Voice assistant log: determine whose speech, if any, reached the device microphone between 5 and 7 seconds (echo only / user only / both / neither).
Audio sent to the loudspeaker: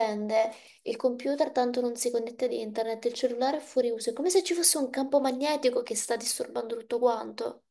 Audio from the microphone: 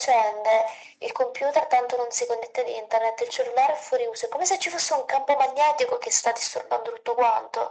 echo only